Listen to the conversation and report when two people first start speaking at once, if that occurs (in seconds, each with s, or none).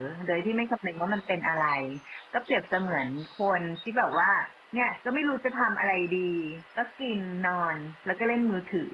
none